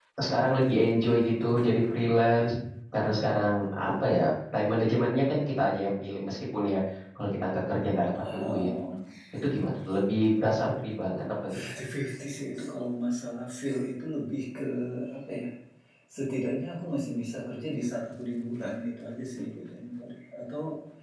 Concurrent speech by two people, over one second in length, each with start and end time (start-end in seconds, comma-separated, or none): none